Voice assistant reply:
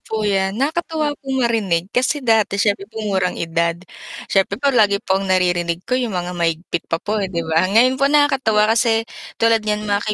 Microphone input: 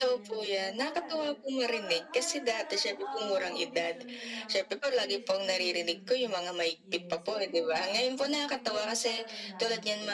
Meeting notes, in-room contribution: present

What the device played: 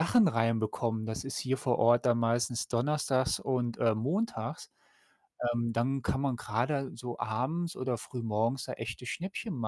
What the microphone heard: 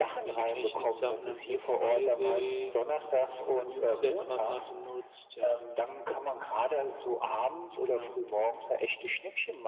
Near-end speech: present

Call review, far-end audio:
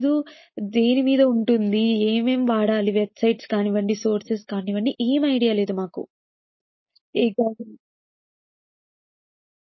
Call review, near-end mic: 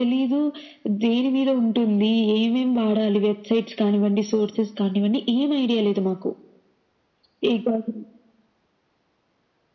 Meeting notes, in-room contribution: none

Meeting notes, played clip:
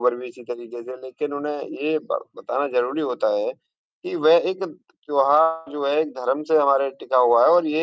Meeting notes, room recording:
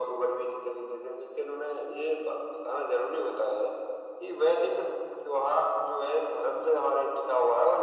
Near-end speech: none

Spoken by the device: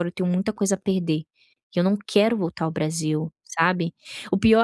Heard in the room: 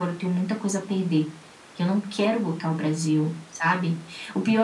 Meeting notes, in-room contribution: none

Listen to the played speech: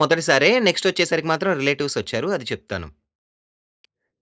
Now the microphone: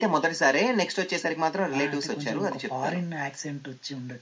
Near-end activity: present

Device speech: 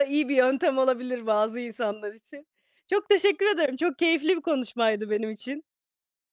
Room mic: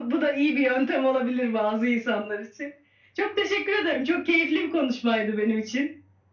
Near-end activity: none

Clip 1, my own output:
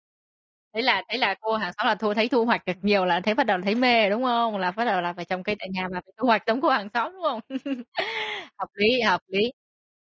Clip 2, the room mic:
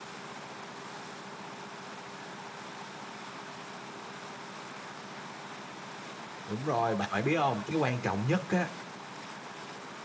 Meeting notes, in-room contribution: present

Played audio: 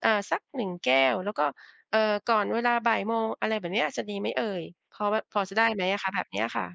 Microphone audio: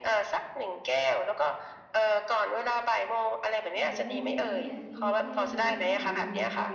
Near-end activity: present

